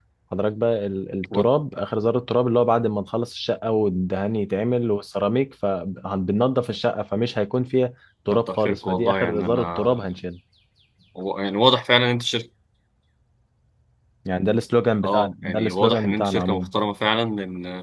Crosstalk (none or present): present